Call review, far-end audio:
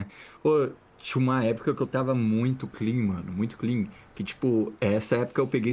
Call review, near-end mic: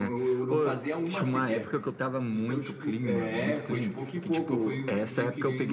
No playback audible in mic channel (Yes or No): No